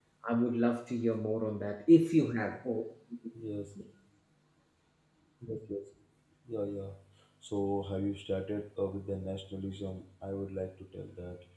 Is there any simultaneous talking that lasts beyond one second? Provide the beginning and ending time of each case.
none

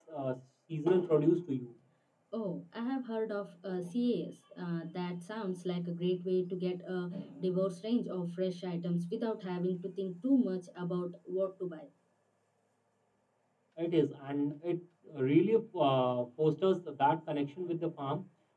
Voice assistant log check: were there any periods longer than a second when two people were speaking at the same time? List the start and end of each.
none

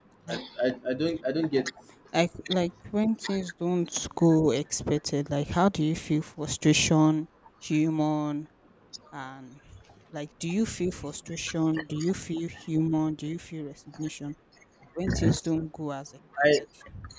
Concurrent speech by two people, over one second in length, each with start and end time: none

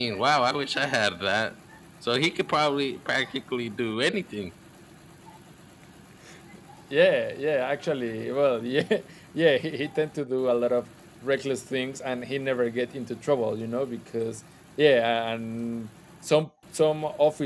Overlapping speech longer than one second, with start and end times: none

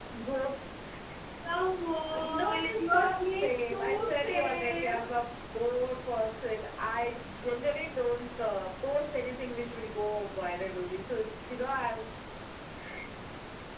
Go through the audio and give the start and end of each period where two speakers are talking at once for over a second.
2.2-5.1

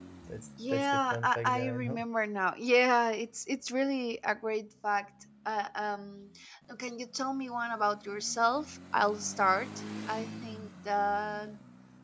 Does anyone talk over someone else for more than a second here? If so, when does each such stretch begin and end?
0.7-2.0

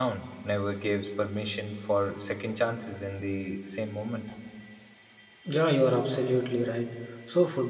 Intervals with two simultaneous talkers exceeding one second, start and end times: none

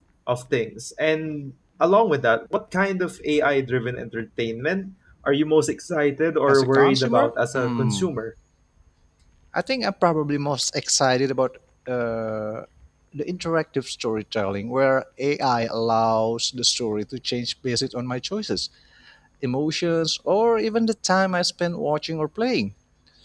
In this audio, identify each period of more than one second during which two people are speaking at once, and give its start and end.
6.5-8.0

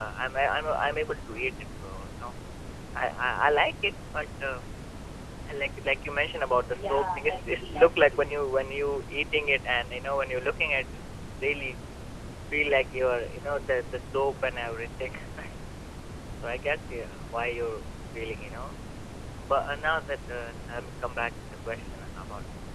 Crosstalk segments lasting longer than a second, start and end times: 6.7-8.2

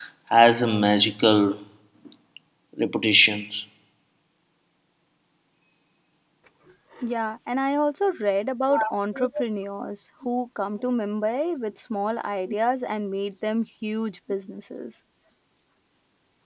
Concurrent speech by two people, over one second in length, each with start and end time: none

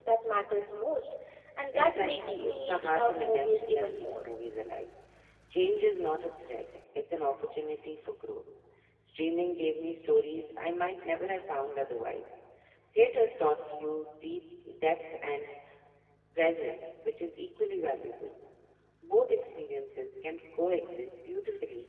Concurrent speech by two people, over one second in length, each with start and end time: 1.7-4.2

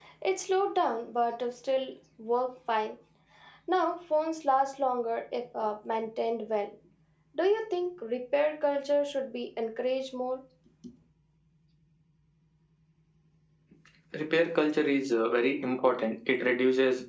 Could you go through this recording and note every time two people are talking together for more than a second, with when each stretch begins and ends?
none

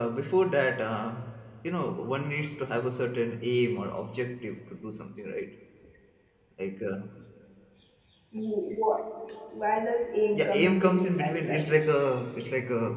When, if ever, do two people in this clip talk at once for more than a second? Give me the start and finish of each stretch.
10.4-11.8

